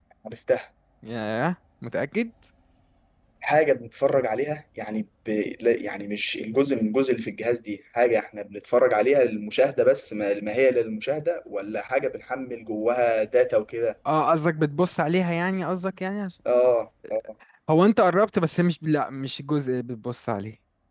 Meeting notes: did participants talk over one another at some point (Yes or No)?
No